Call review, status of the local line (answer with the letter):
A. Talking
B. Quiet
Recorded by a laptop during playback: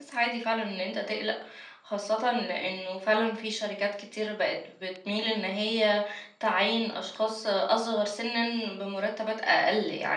A